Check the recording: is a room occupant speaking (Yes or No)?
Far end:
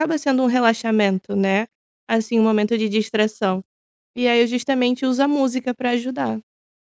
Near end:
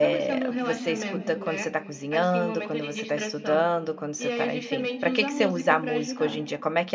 Yes